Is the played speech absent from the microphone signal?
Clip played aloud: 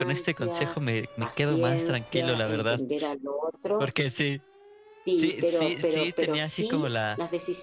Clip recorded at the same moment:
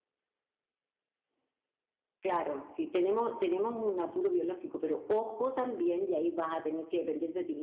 Yes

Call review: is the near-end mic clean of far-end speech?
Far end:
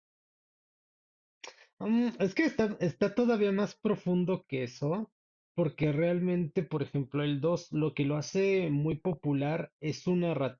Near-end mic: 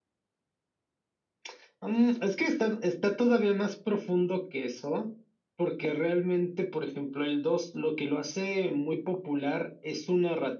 No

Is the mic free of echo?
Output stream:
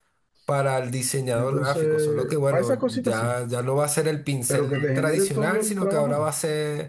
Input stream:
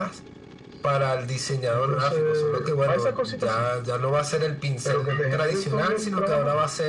No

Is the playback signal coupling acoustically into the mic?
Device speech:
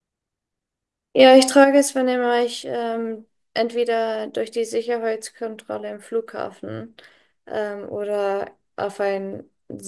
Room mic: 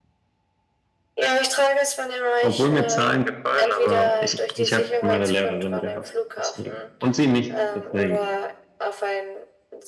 Yes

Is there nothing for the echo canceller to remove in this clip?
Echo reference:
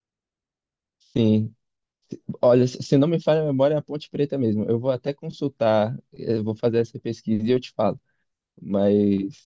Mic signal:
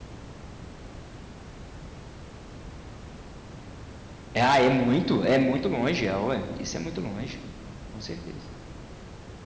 Yes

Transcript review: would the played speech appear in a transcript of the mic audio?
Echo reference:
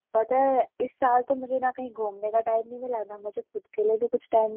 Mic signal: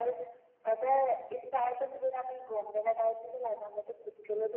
Yes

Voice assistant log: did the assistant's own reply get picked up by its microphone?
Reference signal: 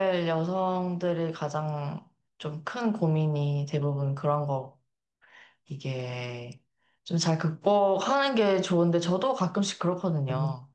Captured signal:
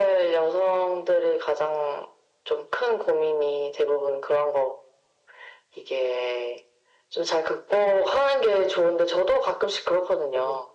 Yes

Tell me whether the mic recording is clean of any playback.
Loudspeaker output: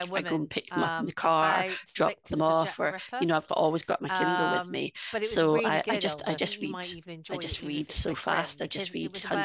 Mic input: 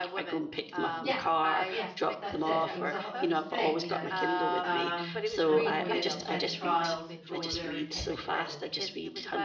No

